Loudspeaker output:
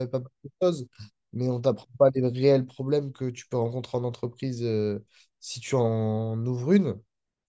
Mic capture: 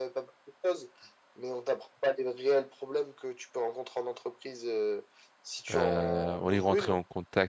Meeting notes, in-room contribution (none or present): present